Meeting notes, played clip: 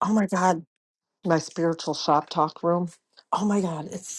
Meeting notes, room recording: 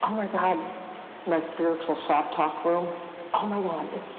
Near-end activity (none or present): none